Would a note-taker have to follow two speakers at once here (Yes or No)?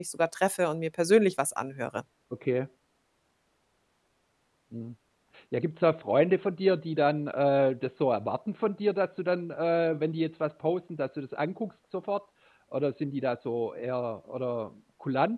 No